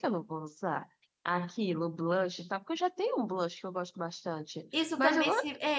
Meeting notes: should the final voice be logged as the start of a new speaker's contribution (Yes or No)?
Yes